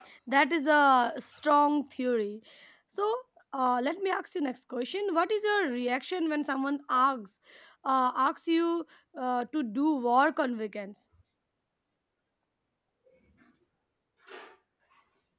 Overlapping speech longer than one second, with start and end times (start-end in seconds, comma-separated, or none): none